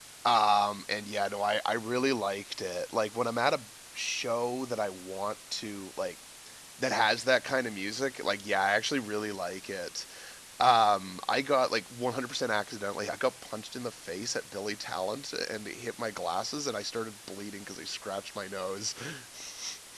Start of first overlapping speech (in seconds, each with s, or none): none